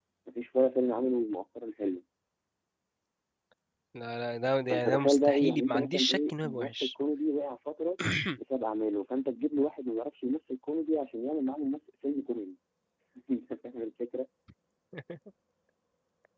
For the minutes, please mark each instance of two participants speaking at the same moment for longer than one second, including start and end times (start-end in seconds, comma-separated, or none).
4.7-6.9